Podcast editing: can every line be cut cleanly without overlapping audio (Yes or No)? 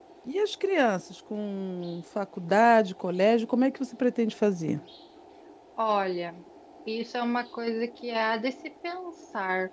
Yes